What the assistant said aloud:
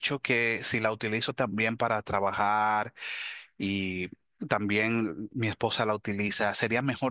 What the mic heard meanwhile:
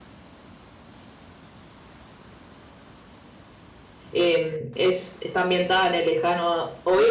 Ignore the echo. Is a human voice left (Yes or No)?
Yes